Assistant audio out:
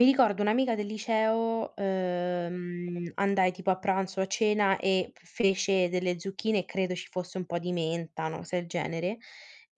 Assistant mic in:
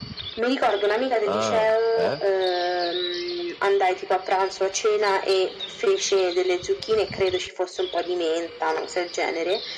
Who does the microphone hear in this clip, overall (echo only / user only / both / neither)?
both